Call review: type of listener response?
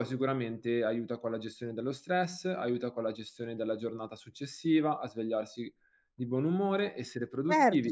taking over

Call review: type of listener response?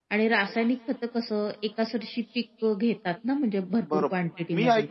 taking over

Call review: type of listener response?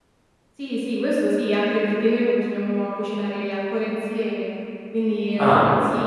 listening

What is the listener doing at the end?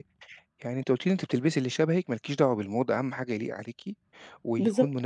listening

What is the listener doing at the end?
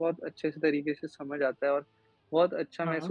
listening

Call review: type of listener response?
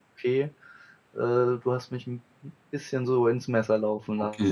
taking over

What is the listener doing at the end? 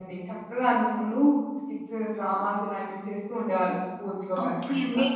taking over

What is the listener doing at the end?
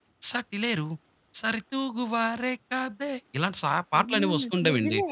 taking over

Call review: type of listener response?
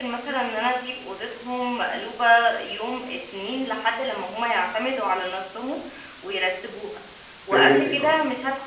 listening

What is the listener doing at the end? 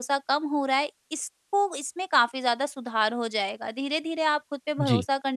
listening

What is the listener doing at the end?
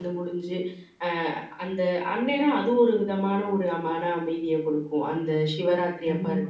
listening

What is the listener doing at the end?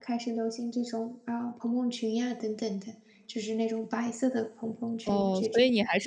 taking over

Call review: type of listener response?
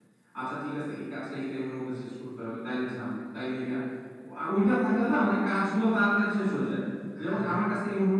listening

